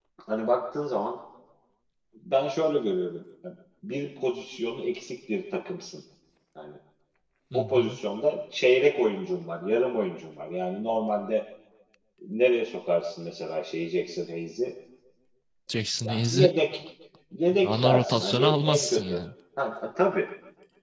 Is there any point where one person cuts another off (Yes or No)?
Yes